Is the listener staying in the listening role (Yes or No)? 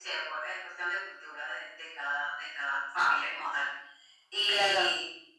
Yes